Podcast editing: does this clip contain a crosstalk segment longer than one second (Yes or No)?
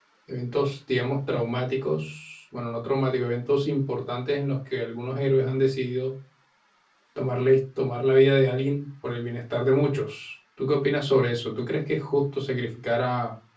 No